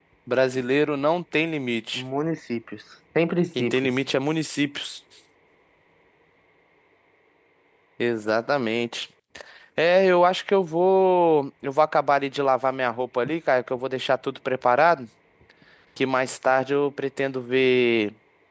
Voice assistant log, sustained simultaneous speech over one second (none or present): none